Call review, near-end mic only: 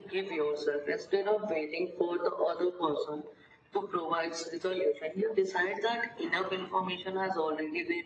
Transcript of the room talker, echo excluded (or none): none